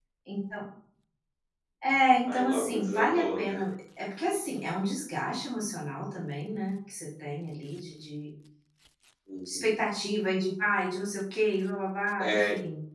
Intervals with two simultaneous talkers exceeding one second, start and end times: 2.3-3.6

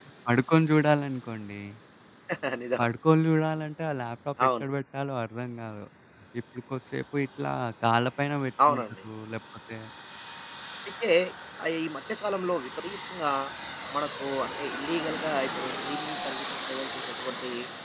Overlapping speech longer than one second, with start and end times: none

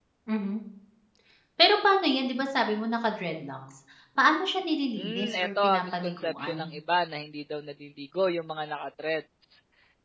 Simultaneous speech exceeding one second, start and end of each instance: 5.0-6.6

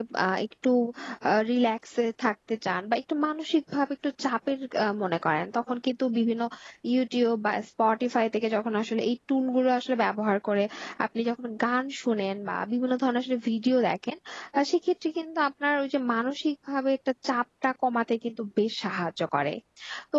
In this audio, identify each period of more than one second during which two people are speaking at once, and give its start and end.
none

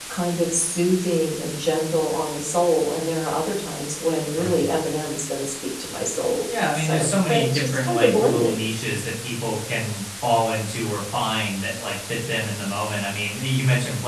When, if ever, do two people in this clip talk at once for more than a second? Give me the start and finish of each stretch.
6.7-8.6

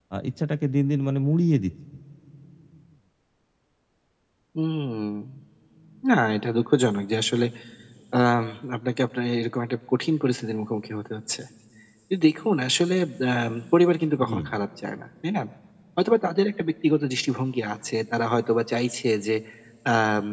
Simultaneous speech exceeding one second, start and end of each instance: none

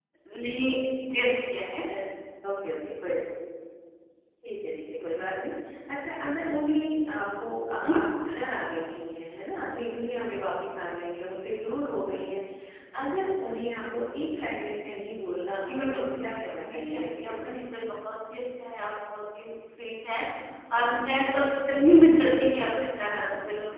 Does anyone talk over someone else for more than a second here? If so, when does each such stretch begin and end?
15.7-17.3

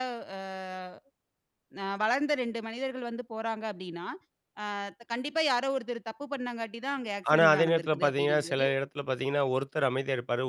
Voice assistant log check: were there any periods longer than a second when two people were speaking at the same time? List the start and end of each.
7.3-8.6

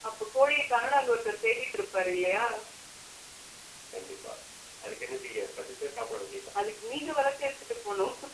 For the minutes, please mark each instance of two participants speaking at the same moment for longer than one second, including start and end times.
none

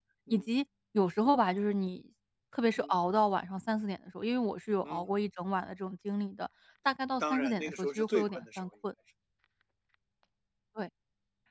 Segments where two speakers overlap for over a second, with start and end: 7.2-8.7

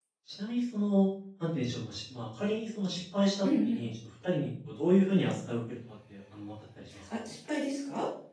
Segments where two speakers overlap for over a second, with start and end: none

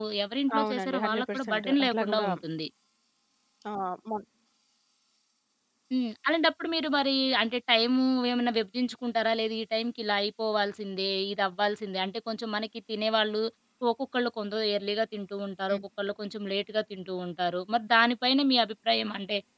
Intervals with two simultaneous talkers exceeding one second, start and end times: 0.6-2.3

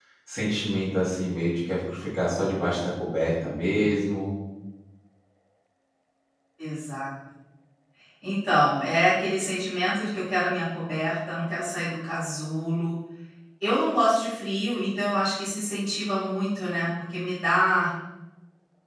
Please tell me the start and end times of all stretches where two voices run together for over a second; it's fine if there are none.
none

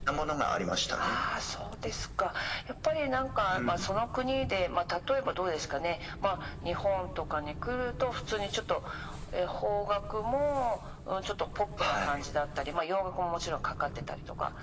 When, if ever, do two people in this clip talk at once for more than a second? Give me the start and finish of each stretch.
none

